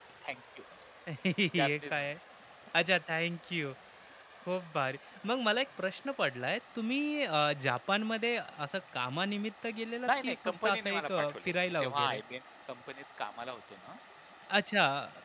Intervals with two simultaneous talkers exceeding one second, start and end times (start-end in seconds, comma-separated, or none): 10.1-12.2